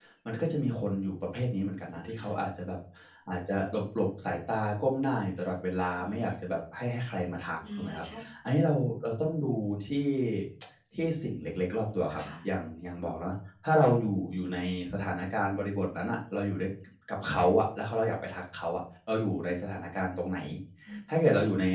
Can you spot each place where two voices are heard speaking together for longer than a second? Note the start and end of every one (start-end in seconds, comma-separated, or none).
none